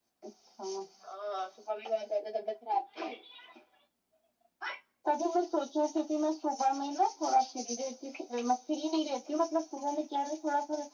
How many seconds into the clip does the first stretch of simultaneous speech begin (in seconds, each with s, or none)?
none